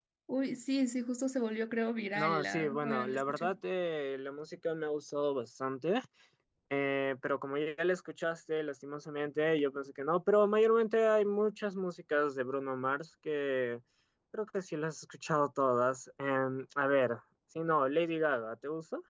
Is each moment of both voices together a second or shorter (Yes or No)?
No